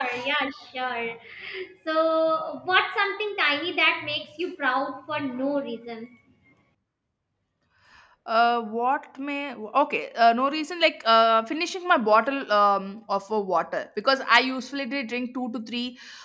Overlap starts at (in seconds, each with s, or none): none